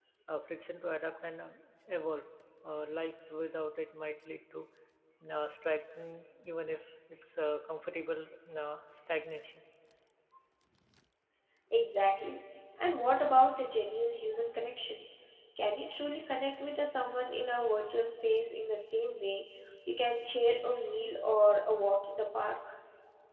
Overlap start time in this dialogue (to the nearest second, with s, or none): none